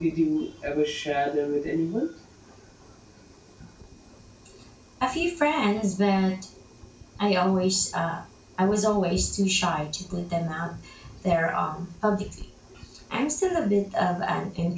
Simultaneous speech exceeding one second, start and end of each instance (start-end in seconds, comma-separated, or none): none